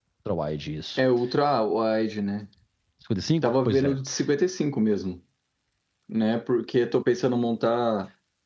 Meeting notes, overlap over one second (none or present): none